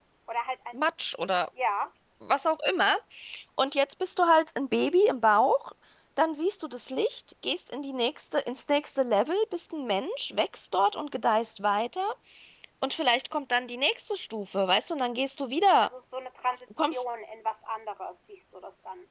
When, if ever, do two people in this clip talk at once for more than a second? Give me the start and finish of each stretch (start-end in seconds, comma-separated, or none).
none